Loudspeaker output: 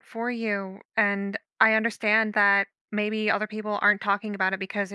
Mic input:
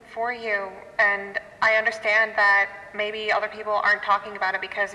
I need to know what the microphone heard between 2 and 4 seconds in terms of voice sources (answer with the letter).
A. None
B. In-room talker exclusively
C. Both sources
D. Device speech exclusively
D